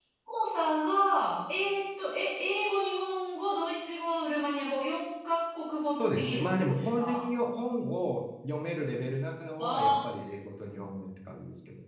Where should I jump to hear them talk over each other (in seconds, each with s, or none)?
6.0 s